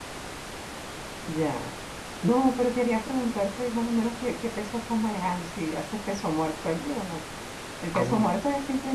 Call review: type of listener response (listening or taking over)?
listening